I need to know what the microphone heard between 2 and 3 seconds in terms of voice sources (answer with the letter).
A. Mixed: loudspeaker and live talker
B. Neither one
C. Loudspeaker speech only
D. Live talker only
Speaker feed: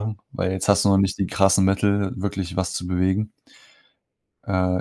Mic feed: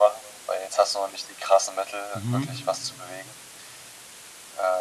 A